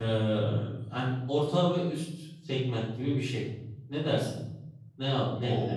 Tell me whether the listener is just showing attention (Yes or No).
No